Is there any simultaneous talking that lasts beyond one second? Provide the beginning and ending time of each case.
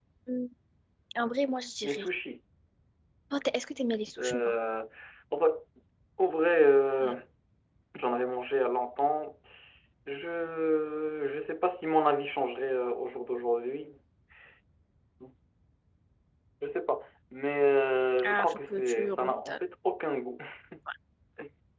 18.2-19.6

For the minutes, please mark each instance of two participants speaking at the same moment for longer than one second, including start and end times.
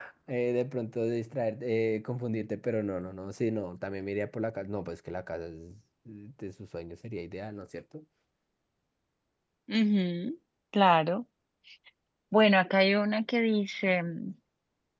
none

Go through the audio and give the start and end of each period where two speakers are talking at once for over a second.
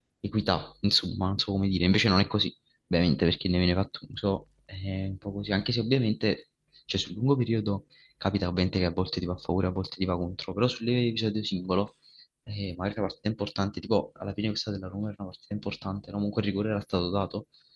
none

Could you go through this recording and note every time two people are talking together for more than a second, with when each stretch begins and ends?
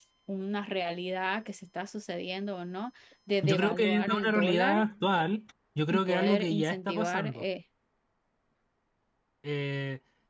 3.4-4.8, 5.9-7.4

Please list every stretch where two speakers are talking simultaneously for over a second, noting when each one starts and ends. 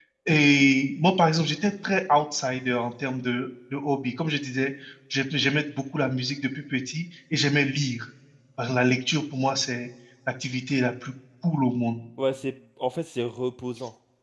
none

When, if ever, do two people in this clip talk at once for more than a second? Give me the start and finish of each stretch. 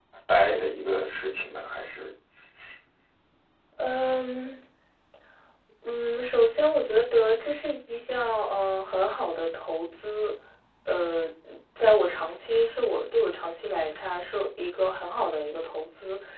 none

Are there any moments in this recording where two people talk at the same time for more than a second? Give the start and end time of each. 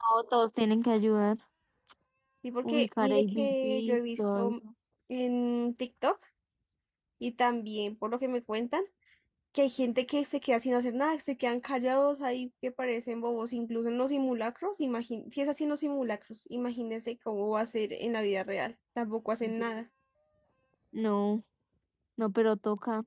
2.6-4.5

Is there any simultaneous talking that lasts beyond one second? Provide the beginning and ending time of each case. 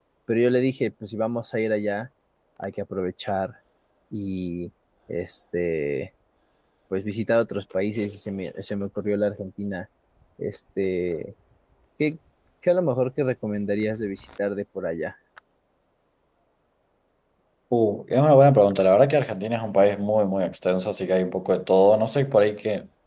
none

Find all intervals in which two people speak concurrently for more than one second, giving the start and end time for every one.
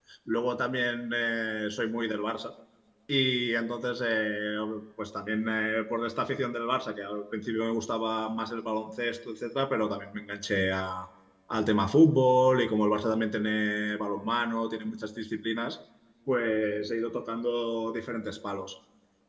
none

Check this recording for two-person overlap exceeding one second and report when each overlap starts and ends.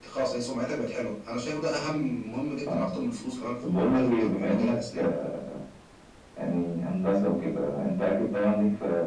3.6-5.1

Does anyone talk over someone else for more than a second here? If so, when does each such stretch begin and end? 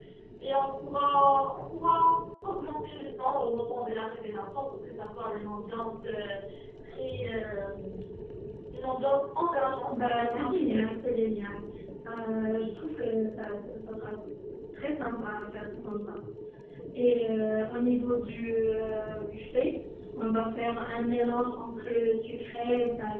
9.9-11.1

